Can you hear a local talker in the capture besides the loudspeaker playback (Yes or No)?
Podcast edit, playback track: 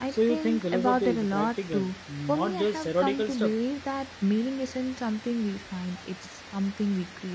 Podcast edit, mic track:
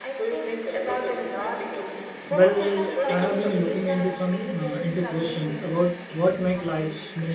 Yes